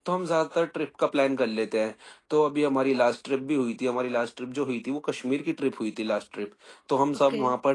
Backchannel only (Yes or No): Yes